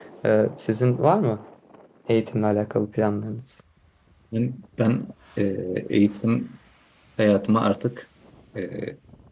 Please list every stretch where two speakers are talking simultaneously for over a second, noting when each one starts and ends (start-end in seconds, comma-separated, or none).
none